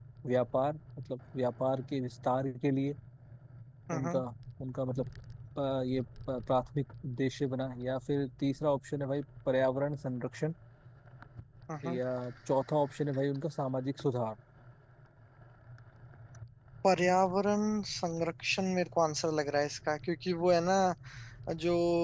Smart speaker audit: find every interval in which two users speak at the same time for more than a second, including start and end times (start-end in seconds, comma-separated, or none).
none